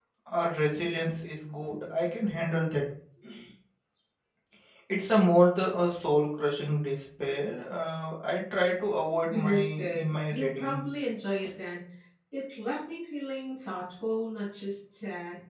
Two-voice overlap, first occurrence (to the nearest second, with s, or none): 9 s